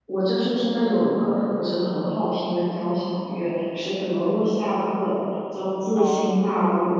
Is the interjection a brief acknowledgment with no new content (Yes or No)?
Yes